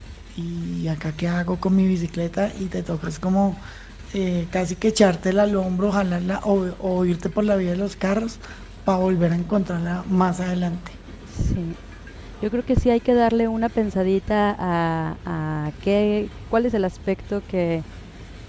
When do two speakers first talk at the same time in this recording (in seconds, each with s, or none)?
none